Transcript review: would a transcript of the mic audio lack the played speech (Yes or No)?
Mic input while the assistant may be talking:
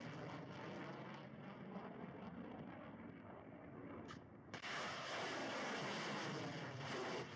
Yes